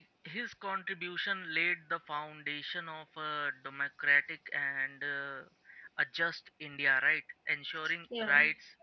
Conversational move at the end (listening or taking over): listening